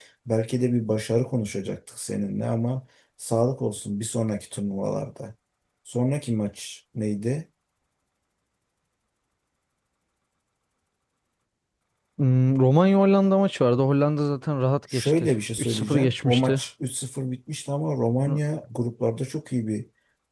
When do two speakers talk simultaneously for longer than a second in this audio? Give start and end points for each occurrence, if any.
14.9-16.6

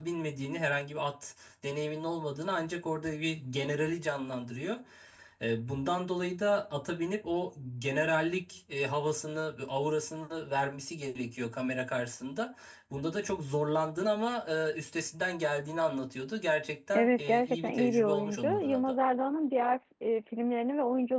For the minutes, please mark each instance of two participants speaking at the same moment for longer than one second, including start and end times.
16.9-18.9

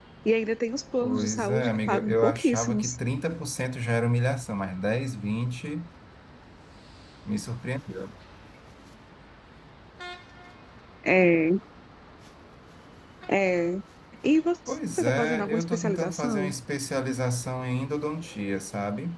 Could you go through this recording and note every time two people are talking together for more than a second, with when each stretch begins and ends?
1.0-3.0, 14.7-16.5

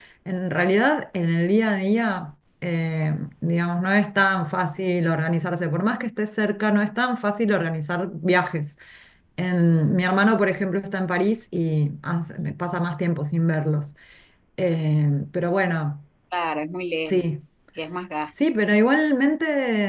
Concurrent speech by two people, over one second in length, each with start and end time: none

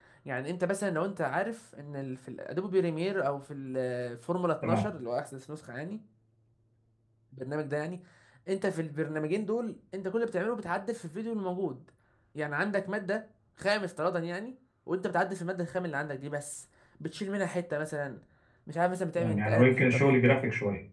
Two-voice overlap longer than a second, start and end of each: 19.2-20.4

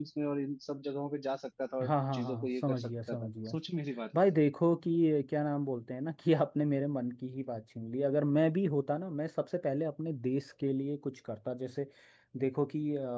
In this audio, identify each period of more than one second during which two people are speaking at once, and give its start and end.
1.8-3.5

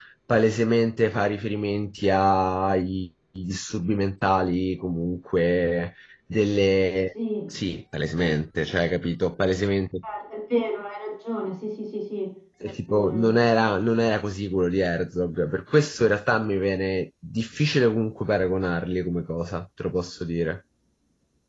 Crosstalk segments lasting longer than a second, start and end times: none

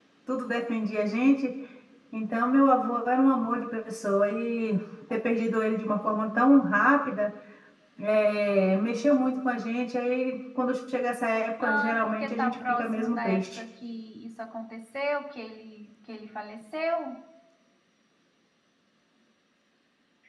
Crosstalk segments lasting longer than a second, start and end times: 11.6-13.6

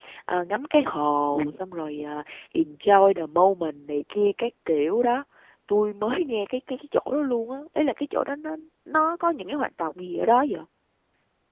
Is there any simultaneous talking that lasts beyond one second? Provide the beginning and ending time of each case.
none

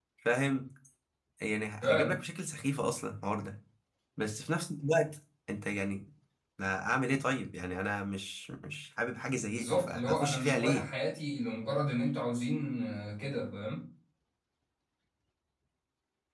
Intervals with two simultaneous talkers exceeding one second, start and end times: 9.5-10.9

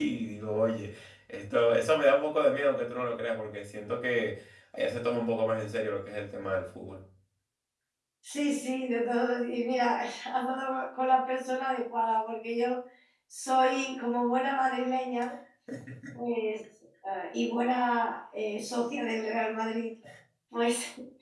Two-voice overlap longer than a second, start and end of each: none

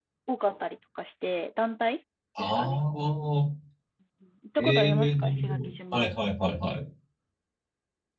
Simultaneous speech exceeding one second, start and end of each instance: 4.6-6.0

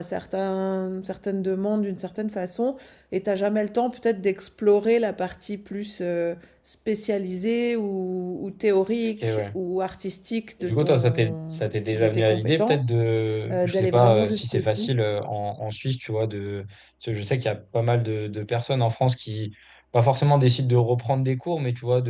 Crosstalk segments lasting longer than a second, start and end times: 10.6-12.9, 13.5-14.9

